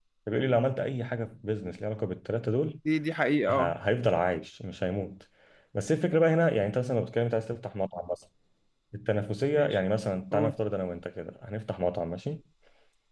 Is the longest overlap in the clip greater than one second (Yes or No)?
No